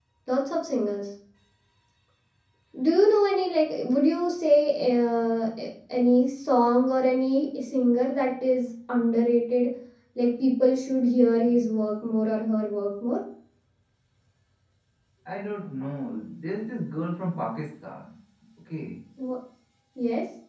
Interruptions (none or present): none